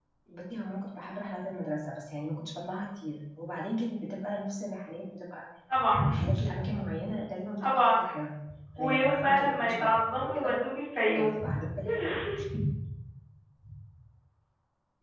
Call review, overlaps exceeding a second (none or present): present